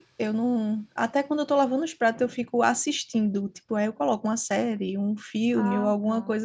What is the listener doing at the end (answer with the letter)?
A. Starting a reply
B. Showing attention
B